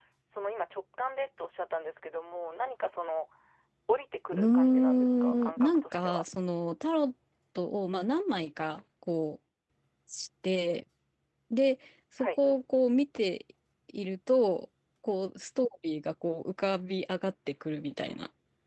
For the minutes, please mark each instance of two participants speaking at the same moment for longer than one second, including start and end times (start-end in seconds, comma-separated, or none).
4.3-6.2